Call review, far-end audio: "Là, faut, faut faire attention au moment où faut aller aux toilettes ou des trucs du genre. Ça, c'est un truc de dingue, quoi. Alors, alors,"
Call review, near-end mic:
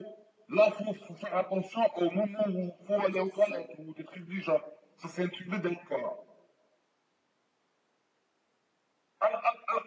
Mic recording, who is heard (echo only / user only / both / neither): both